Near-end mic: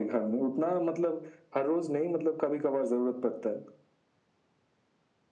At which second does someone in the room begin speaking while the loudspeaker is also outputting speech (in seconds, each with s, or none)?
none